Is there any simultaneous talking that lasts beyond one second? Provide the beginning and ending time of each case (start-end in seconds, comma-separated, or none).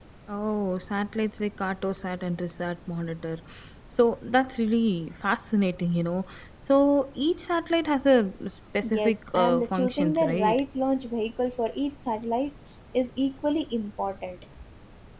8.9-10.6